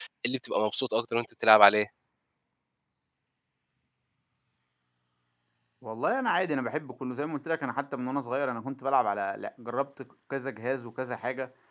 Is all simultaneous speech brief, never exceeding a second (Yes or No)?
Yes